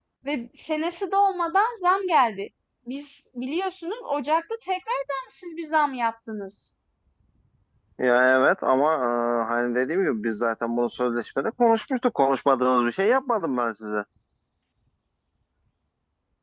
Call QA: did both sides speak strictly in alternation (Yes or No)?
Yes